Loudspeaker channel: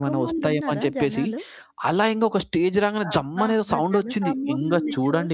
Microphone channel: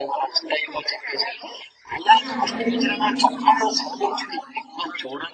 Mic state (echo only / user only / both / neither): both